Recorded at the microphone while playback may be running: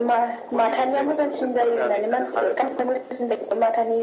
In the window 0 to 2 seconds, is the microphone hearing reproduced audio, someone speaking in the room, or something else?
echo only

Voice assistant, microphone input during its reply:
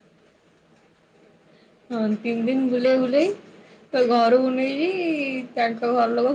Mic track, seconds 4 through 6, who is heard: echo only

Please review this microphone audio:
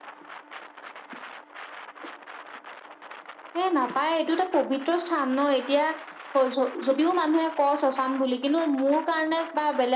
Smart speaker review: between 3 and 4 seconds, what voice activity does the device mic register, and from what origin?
echo only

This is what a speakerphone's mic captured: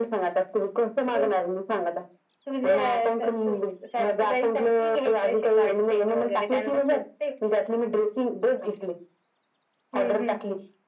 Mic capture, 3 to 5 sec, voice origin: echo only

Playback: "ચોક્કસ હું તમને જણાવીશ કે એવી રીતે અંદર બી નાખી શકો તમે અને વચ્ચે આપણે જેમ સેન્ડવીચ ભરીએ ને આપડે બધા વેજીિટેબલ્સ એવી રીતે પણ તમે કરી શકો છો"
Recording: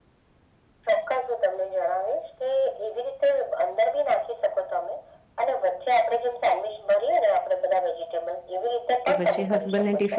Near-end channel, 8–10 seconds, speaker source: both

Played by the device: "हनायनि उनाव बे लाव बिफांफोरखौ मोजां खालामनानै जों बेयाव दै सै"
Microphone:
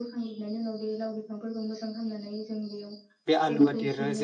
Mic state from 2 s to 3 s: echo only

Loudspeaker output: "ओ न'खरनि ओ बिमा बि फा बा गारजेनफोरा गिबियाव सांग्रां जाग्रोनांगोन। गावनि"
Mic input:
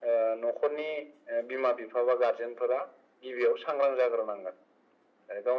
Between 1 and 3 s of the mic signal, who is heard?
echo only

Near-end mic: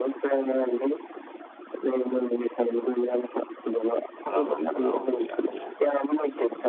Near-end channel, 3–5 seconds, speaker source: both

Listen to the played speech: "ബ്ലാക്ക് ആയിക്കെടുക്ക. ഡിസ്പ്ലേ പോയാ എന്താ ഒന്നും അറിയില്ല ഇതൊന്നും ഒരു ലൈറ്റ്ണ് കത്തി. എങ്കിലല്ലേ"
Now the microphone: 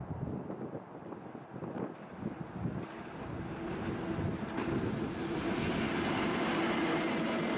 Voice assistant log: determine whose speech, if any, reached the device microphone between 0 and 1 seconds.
neither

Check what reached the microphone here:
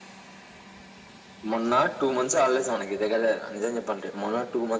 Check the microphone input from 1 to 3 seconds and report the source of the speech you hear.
echo only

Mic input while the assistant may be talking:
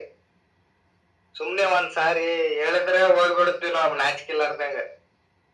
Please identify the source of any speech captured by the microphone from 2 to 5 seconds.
echo only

